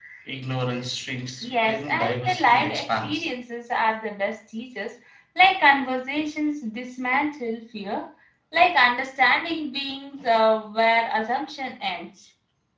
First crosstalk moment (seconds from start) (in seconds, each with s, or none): 1.4 s